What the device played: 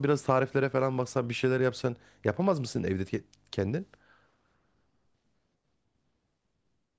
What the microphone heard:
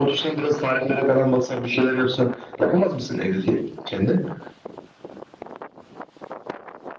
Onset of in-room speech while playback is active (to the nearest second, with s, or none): none